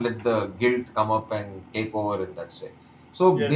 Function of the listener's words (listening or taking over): listening